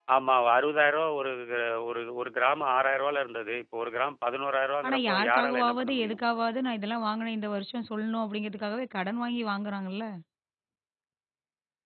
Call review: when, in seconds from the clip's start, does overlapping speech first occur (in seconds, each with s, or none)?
4.8 s